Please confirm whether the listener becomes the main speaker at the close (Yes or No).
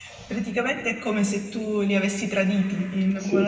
Yes